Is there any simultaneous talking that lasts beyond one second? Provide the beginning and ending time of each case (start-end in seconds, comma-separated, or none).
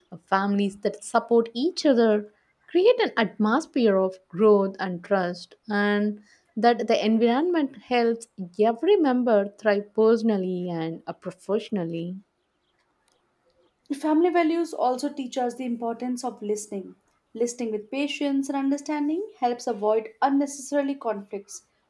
none